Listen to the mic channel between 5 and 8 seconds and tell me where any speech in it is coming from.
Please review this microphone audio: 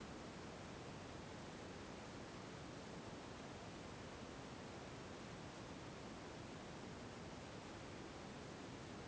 neither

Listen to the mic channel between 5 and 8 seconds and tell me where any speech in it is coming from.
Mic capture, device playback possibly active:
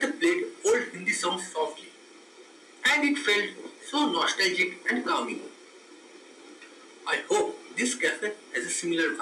echo only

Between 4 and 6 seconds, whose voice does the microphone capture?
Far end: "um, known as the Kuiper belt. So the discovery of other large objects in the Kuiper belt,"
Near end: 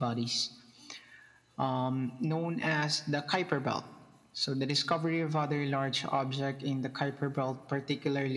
echo only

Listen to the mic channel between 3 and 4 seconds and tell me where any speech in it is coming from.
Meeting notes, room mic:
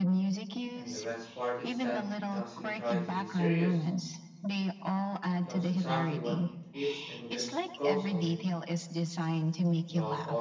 both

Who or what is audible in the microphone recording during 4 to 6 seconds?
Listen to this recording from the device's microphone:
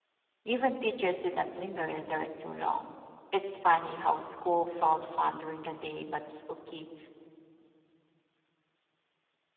user only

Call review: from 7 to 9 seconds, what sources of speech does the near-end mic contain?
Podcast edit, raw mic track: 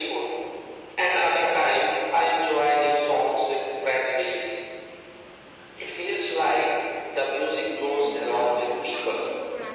both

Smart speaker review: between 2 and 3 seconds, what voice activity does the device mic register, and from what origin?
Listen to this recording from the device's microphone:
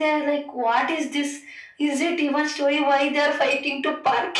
echo only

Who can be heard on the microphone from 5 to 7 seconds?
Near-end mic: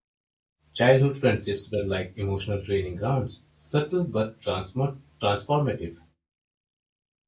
user only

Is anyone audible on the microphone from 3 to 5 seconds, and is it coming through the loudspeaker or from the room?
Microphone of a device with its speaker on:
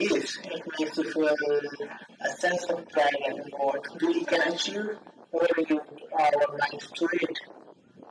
both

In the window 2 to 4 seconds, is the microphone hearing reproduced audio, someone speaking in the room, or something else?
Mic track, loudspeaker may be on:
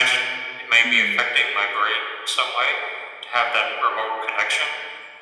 echo only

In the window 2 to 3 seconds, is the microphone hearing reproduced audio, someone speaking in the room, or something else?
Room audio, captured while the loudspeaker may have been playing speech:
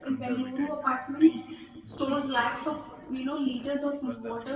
echo only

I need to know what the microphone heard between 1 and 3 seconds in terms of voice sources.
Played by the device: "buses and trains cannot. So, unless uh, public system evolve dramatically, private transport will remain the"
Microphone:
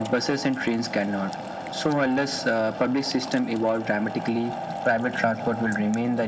echo only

